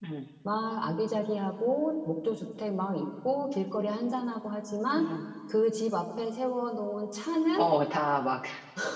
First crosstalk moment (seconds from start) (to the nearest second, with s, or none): none